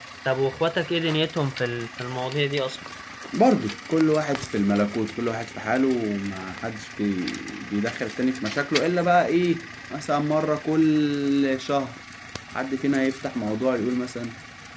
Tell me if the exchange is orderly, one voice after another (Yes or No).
Yes